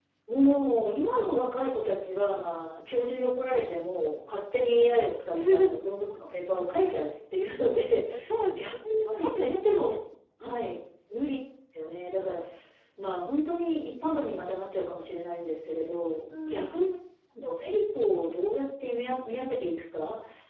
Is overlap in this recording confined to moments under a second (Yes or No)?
No